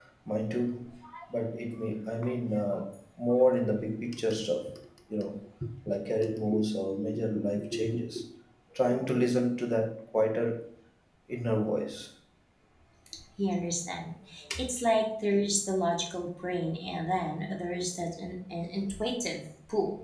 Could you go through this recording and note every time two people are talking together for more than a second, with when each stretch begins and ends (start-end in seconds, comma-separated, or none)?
none